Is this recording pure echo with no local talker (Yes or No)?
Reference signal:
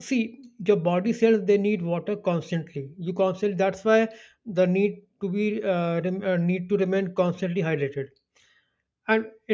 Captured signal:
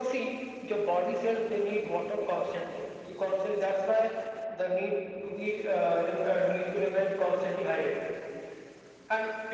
Yes